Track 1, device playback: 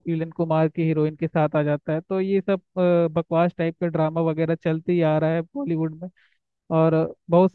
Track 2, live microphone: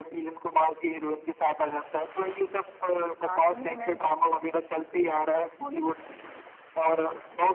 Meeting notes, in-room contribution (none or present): present